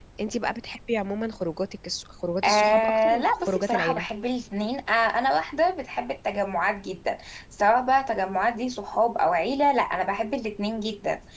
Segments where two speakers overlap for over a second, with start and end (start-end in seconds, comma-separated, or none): 2.4-4.1